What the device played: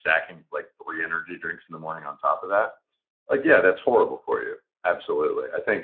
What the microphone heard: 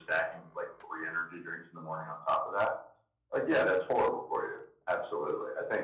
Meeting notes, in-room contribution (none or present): none